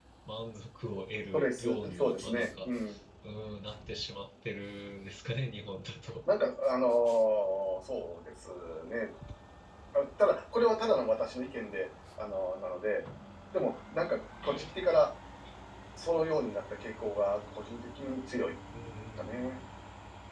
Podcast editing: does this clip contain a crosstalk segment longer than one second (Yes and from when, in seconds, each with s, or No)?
Yes, from 1.3 s